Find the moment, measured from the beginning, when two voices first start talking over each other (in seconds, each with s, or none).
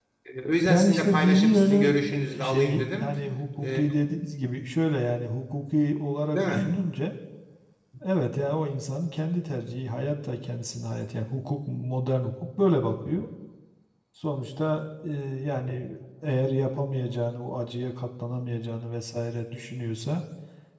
0.7 s